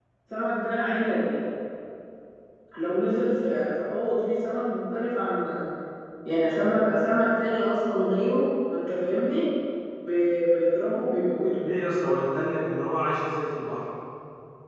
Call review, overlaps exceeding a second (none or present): none